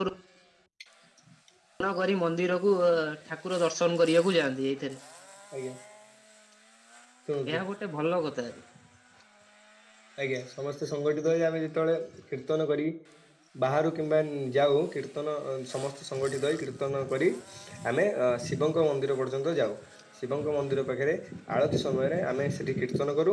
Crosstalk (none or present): none